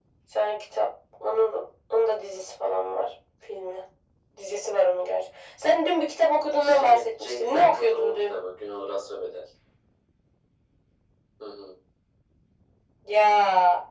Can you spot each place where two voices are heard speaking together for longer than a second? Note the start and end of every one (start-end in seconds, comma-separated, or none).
6.6-8.4